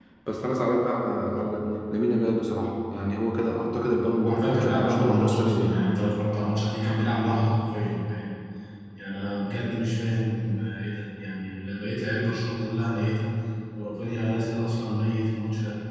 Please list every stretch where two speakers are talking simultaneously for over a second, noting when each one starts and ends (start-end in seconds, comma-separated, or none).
4.2-5.8